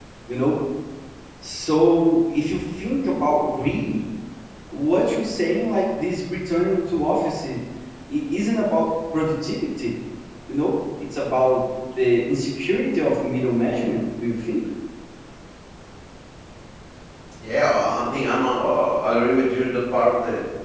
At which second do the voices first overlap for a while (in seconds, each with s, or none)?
none